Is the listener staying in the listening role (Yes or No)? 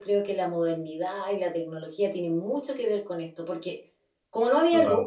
Yes